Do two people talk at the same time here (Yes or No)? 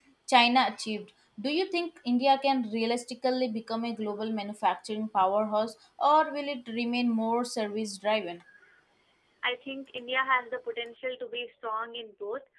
No